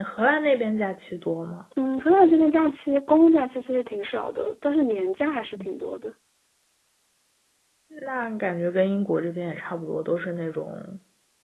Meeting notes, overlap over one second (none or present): none